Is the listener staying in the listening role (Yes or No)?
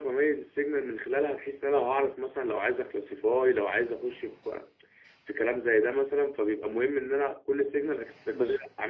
Yes